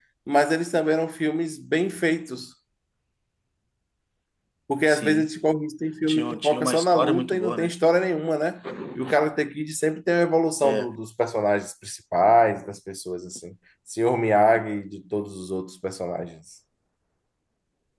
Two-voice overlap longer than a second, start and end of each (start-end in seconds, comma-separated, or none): 6.1-7.7